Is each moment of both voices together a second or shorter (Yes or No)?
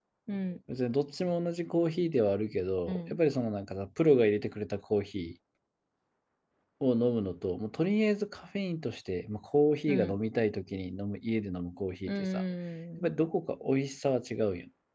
Yes